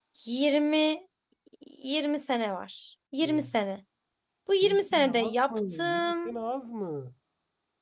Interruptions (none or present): present